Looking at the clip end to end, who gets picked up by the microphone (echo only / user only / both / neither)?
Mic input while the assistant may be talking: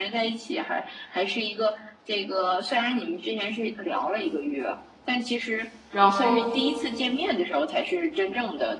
both